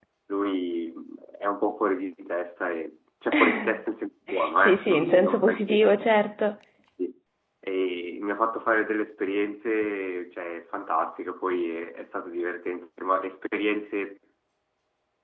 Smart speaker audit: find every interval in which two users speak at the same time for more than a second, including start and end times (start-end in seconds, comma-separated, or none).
4.6-6.1